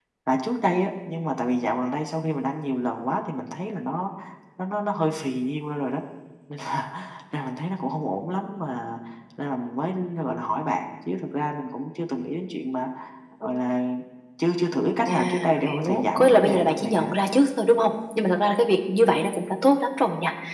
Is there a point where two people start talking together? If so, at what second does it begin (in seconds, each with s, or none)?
15.1 s